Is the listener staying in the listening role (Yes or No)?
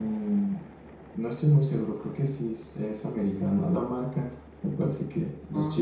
Yes